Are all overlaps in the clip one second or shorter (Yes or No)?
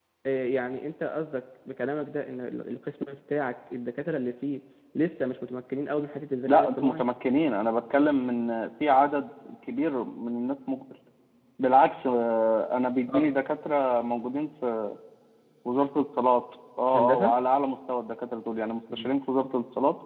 Yes